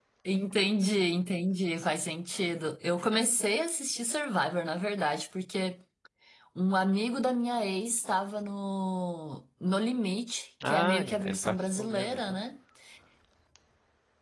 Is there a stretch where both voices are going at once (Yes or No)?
Yes